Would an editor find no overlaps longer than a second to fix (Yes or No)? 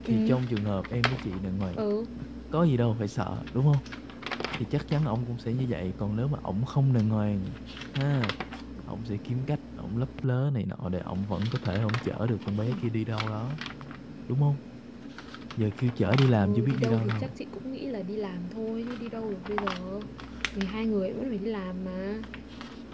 No